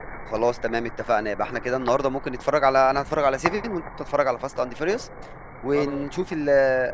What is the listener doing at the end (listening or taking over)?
listening